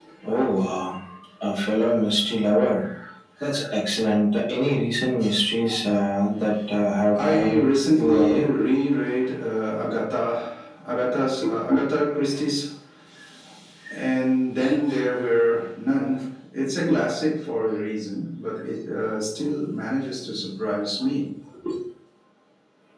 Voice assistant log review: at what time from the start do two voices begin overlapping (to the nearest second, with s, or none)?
7 s